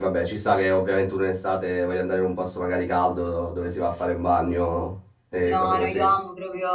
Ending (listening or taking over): taking over